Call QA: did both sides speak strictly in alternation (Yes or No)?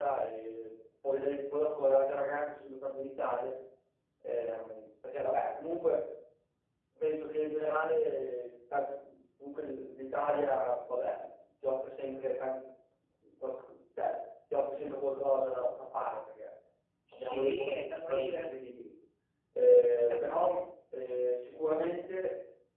No